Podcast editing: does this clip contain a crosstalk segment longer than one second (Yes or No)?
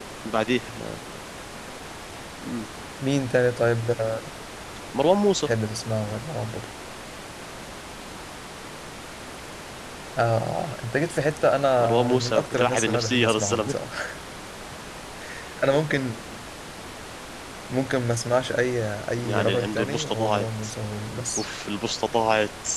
Yes